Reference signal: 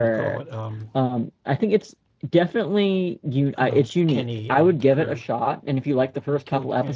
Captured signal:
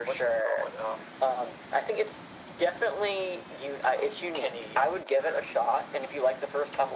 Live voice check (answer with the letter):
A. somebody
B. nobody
B